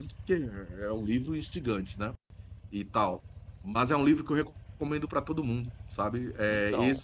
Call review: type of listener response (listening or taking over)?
listening